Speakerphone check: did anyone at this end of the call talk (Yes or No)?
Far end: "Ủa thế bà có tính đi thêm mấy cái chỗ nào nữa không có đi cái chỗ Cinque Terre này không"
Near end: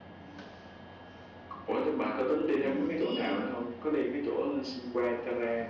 Yes